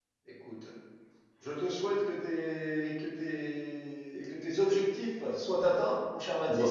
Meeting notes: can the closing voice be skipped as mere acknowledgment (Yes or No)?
No